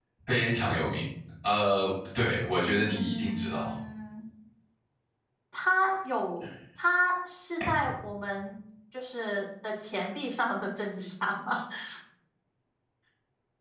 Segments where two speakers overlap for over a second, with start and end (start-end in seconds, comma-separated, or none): 2.5-3.7